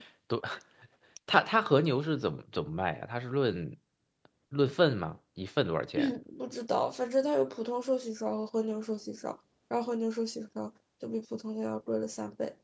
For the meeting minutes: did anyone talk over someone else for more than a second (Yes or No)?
No